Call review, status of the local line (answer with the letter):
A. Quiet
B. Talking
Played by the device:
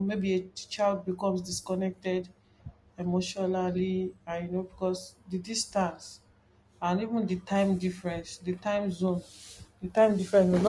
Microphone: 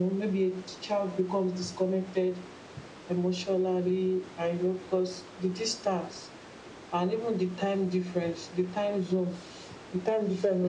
A